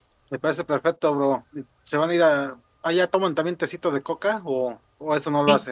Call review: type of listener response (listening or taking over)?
taking over